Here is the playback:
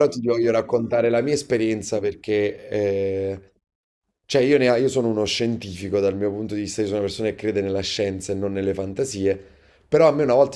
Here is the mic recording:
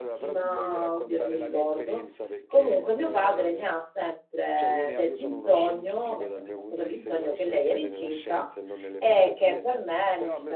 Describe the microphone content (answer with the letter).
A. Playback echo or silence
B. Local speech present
B